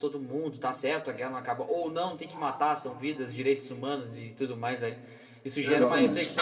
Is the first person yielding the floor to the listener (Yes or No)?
No